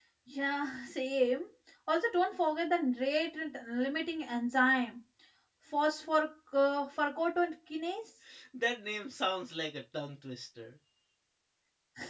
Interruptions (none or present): none